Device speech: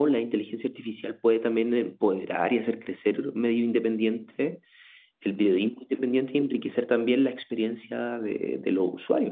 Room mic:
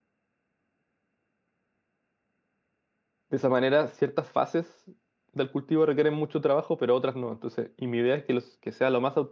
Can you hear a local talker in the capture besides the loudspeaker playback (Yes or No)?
Yes